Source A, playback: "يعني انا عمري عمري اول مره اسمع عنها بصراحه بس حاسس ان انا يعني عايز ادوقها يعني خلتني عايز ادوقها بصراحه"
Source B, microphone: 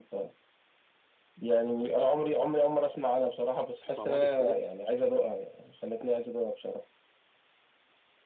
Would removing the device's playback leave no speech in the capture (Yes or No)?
No